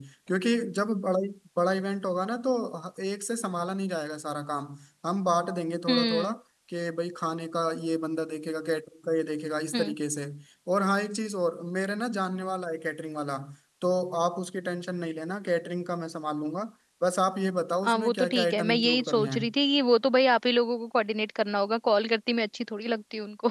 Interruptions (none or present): present